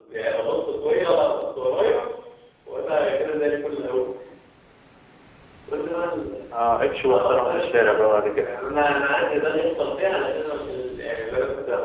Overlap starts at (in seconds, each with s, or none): 7.1 s